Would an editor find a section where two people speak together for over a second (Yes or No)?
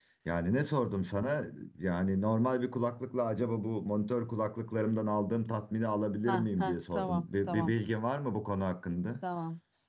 Yes